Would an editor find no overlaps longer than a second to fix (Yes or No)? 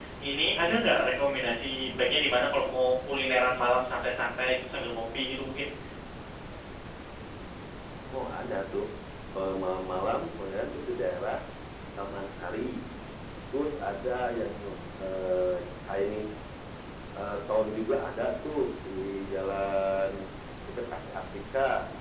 Yes